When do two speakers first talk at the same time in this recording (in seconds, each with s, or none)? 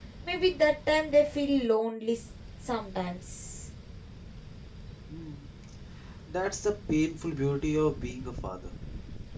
none